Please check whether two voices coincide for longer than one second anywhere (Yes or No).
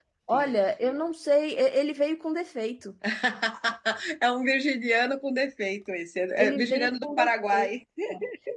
Yes